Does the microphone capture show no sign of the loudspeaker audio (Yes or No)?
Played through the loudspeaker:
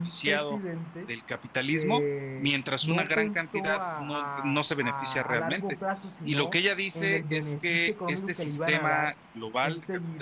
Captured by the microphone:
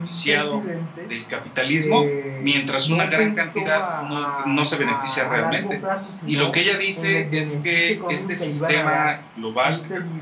No